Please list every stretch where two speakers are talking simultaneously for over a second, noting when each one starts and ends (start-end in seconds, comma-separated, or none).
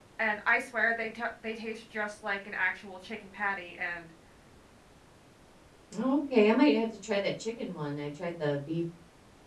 none